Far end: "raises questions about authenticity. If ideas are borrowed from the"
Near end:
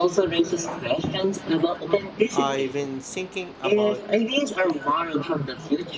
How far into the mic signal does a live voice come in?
2.3 s

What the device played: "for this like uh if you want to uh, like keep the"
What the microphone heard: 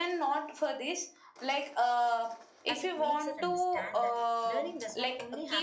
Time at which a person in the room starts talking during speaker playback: 2.6 s

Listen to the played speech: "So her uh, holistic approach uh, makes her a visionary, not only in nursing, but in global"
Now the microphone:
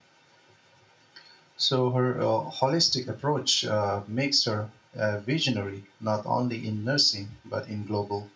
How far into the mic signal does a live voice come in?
none

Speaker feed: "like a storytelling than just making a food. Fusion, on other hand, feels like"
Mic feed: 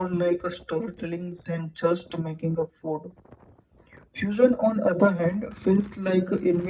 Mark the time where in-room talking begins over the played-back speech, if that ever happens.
none

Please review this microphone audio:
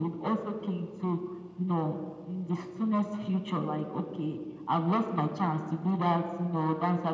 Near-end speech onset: none

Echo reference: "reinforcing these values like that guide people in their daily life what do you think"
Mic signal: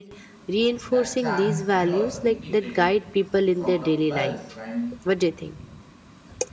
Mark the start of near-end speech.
0.9 s

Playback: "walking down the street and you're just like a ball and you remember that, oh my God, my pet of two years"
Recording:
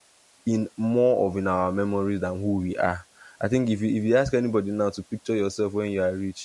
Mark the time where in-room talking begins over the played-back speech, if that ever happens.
0.4 s

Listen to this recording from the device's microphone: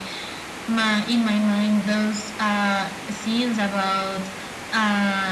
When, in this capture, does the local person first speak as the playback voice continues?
none

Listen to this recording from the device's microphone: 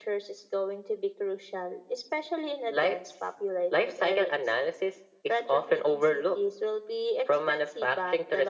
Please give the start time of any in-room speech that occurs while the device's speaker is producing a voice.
none

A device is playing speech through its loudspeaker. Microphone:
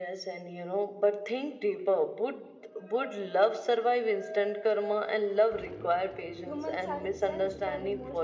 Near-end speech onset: 6.4 s

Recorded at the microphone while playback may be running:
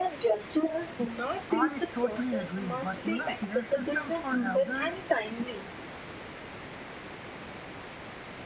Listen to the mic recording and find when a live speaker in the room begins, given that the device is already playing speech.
1.5 s

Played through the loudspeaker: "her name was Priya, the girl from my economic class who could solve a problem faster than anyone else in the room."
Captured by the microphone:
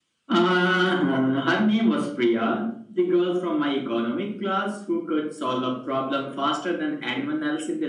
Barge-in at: none

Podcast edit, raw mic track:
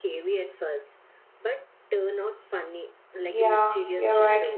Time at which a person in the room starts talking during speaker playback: 3.3 s

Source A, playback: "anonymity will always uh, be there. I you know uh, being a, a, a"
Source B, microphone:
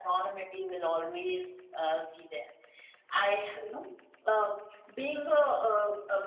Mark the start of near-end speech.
none

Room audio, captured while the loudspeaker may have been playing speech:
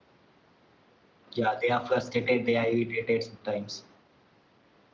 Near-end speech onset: 1.3 s

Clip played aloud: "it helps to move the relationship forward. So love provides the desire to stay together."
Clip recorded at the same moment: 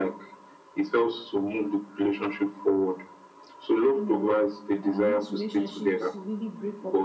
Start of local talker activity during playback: 3.9 s

